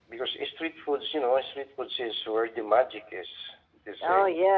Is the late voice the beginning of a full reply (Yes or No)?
Yes